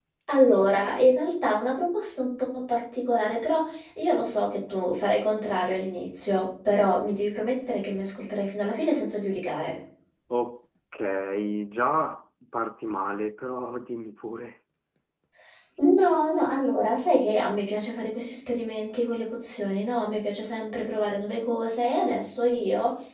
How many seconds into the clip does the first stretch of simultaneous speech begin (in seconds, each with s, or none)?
none